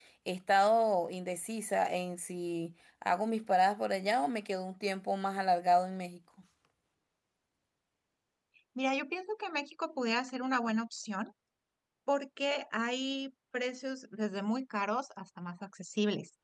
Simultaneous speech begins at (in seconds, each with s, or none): none